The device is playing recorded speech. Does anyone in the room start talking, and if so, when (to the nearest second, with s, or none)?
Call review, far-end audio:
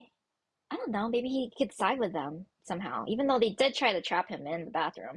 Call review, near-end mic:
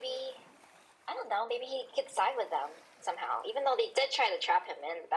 none